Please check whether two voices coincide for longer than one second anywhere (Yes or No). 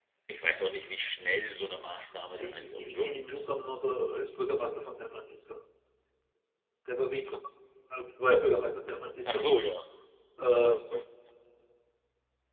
Yes